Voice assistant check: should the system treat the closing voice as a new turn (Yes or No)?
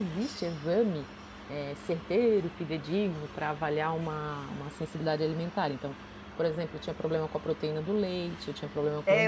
Yes